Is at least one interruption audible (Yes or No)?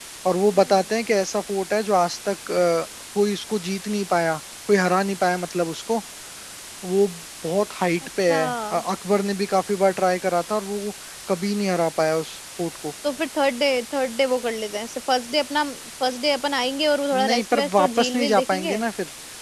Yes